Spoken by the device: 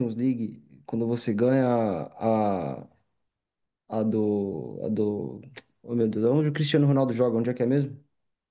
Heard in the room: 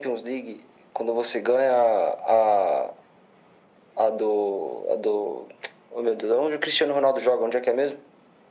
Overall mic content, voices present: echo only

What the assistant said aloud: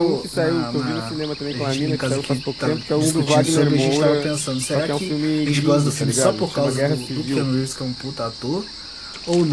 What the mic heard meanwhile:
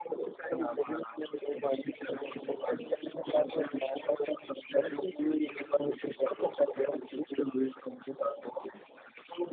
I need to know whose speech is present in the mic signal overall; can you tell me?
echo only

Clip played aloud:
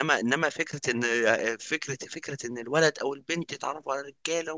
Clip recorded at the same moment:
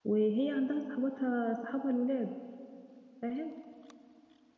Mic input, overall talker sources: user only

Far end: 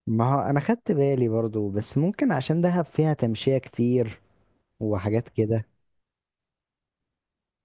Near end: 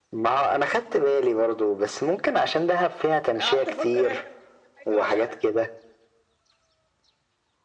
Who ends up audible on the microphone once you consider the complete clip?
both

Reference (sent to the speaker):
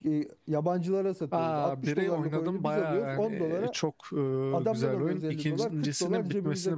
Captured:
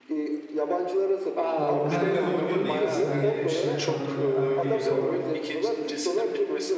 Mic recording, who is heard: both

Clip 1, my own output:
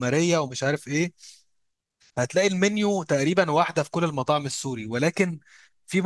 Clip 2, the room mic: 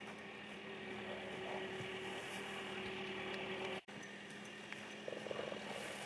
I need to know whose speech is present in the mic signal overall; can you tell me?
neither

